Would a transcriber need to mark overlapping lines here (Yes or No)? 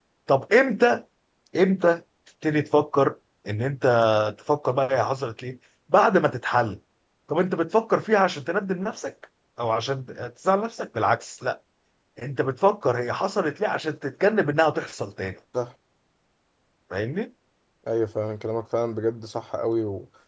No